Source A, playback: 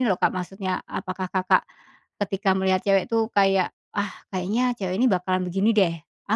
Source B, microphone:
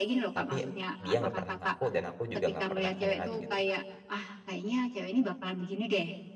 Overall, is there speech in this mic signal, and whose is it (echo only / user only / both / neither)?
both